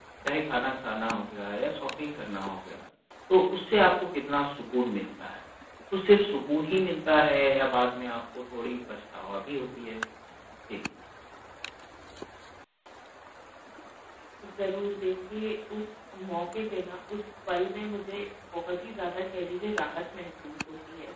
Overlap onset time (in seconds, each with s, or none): none